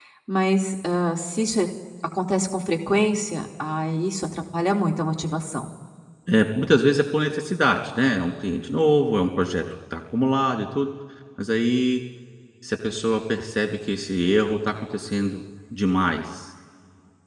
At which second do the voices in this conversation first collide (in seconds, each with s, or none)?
none